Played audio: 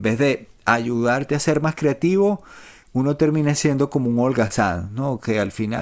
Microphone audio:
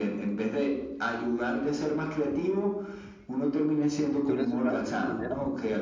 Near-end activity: present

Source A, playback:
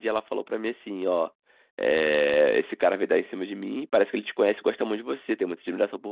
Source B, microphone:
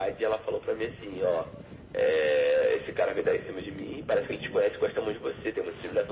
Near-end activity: none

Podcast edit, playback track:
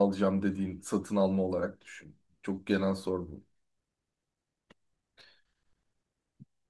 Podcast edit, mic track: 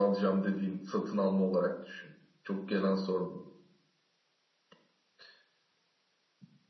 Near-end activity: none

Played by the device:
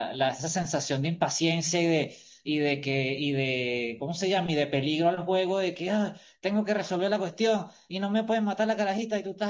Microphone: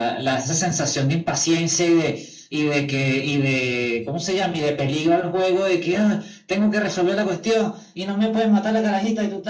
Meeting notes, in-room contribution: none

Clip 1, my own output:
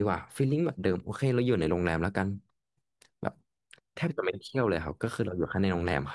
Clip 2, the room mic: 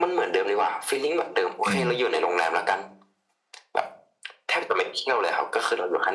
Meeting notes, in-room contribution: present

